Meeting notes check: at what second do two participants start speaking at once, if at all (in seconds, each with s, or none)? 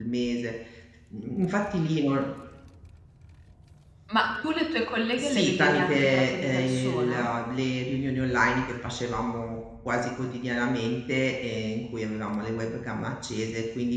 5.2 s